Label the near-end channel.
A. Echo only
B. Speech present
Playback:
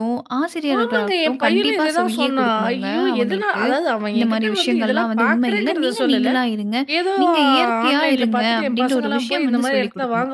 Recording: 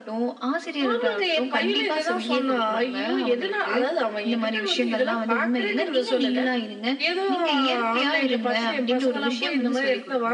A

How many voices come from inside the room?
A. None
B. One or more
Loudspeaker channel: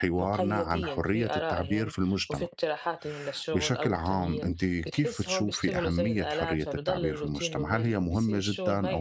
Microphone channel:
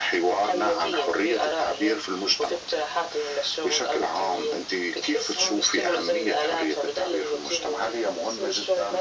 A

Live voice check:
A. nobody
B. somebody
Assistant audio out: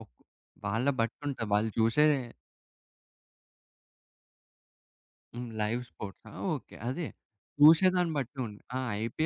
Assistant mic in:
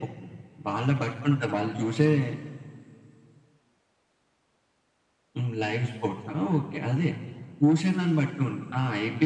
A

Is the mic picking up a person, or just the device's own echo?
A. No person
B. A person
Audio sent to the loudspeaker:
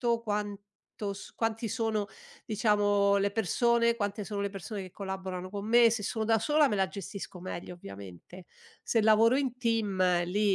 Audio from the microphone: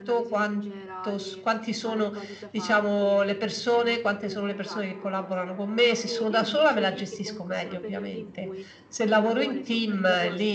B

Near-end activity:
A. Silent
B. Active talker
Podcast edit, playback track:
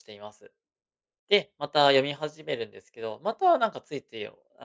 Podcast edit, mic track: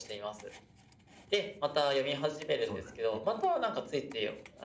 B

